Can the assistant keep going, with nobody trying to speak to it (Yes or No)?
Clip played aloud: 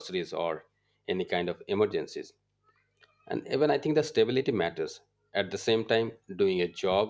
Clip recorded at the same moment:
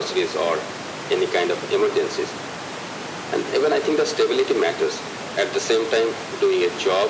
Yes